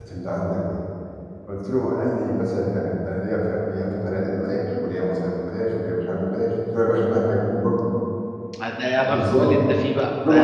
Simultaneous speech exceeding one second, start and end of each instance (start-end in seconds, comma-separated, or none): none